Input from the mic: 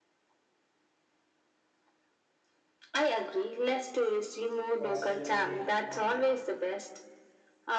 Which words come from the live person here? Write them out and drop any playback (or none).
pastel di Marte.